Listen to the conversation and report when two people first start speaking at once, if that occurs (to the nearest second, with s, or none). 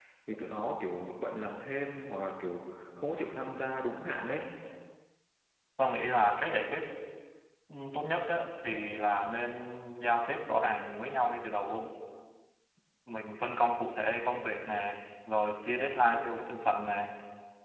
none